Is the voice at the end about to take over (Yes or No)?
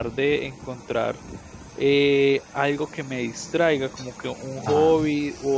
No